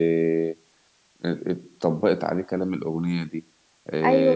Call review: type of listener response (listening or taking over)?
taking over